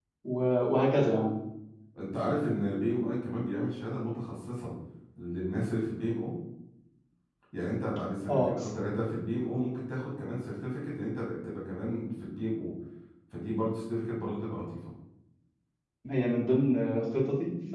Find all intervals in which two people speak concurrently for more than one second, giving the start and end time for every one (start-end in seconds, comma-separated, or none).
none